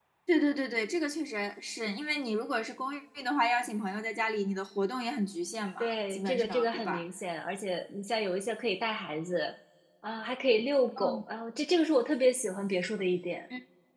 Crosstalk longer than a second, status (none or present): present